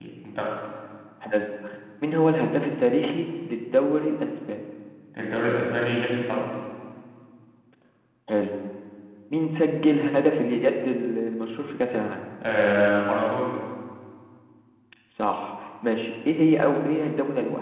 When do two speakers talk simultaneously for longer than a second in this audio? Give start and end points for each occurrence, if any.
none

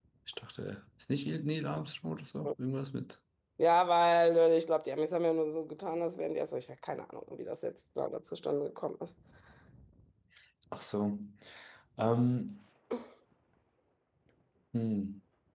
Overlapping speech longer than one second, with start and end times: none

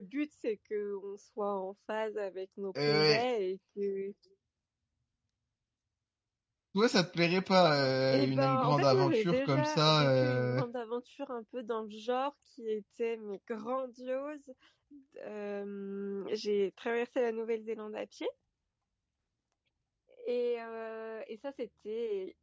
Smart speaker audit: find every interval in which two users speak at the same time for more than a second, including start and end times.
8.1-10.6

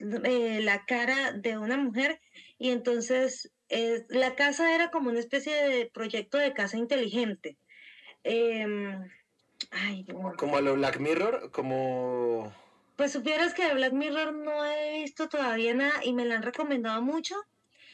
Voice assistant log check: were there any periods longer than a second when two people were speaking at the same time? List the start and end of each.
none

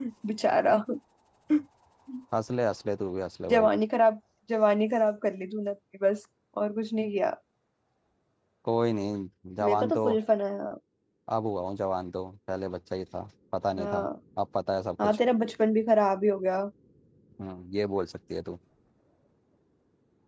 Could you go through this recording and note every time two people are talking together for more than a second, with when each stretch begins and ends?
none

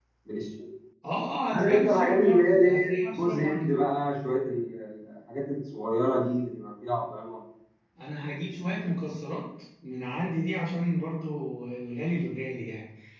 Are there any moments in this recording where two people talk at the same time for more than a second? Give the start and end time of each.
1.5-3.6

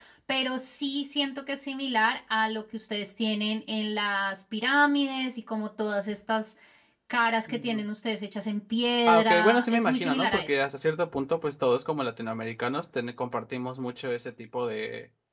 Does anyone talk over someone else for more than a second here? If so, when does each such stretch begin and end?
9.1-10.6

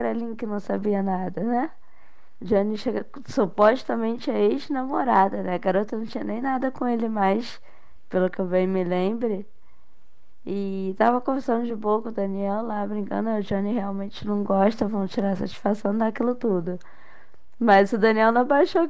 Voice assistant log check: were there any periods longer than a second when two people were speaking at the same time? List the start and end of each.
none

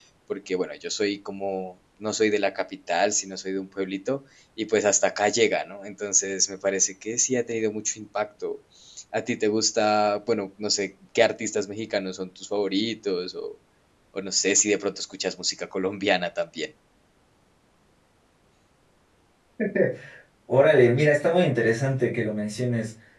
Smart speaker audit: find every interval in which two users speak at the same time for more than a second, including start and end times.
none

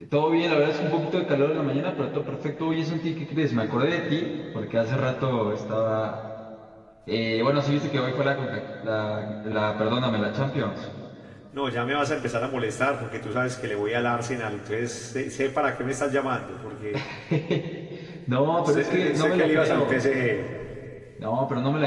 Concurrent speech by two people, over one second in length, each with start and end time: 18.6-19.9

